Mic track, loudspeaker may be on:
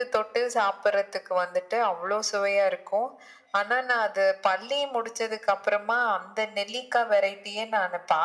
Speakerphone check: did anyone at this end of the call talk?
No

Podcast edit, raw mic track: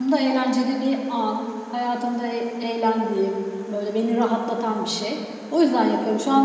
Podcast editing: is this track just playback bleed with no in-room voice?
No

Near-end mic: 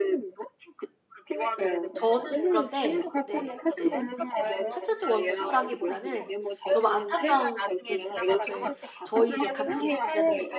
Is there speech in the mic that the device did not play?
Yes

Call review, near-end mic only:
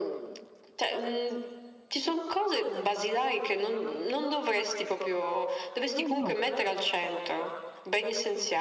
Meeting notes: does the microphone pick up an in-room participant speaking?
Yes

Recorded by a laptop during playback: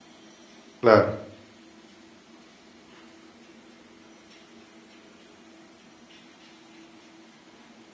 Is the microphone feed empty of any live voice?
No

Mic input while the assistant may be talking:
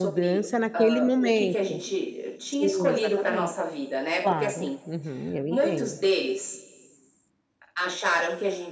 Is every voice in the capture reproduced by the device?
No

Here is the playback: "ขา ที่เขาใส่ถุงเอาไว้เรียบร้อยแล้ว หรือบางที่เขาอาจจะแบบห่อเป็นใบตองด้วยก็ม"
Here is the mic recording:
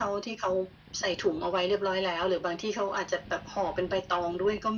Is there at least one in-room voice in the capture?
No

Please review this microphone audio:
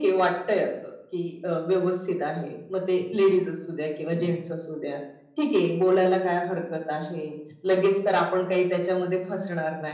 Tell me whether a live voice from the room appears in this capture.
No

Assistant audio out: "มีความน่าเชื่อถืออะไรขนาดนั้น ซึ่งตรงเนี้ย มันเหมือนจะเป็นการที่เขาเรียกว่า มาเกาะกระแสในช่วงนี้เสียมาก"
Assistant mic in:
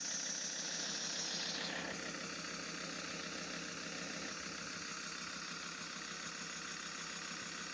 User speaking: No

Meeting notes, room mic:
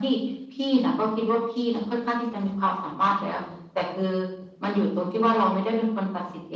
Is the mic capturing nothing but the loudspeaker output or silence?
Yes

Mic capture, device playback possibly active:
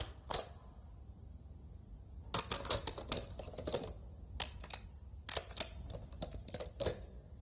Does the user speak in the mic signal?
No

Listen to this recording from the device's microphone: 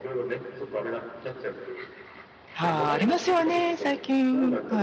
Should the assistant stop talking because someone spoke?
Yes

